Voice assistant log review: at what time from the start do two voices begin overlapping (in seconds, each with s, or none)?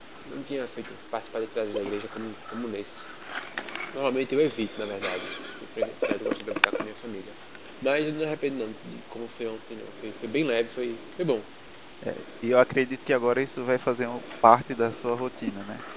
none